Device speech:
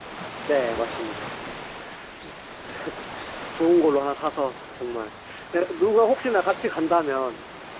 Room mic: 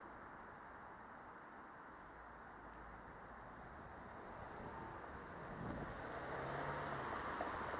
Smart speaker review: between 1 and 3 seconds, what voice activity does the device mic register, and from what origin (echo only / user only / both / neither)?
neither